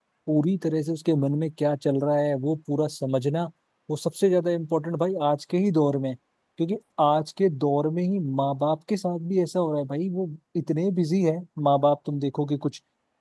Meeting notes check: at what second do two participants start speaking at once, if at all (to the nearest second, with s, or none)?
none